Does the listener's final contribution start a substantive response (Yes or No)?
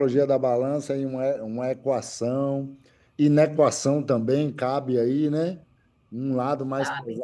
No